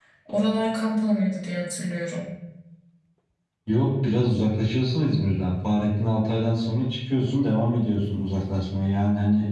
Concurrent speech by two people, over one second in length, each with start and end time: none

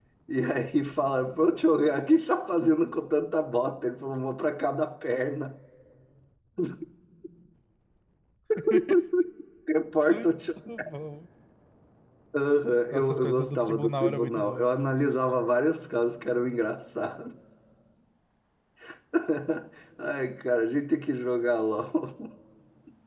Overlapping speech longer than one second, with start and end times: 12.9-14.7

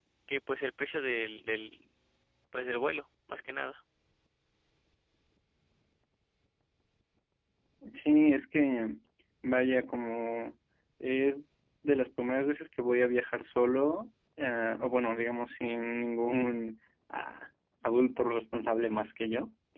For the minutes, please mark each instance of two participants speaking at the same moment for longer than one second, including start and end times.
none

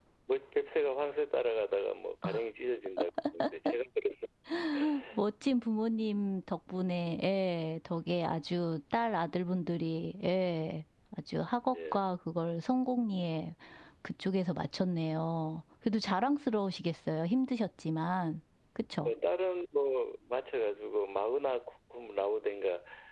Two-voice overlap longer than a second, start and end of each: none

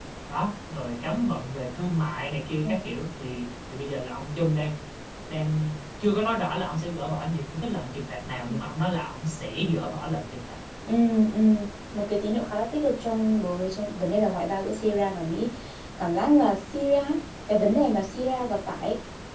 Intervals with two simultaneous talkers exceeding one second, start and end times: none

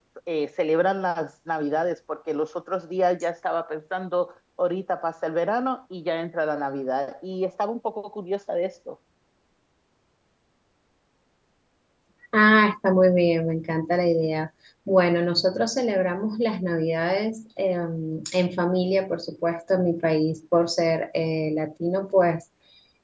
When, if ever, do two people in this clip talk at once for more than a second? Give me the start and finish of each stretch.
none

